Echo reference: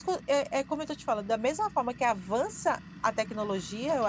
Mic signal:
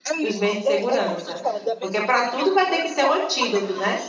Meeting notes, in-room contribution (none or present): present